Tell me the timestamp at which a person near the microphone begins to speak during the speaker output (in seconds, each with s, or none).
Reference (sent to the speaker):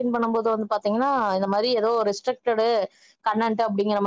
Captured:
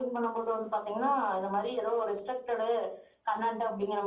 none